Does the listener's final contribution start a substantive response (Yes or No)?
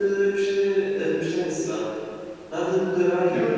Yes